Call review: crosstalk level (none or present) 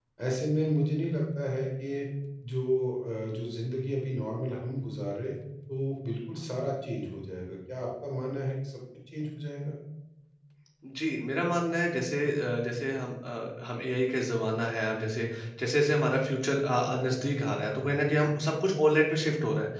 none